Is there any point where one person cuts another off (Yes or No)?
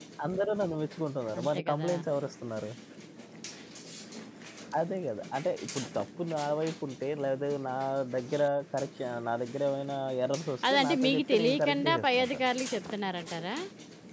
Yes